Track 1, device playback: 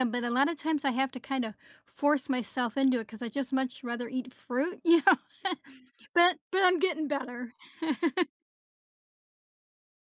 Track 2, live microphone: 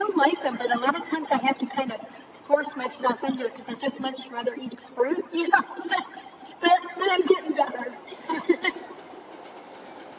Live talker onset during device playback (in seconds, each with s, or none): none